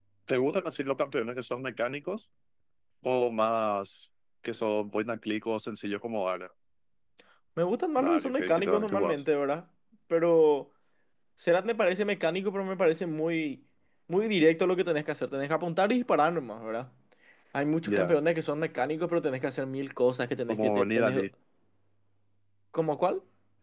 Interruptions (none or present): present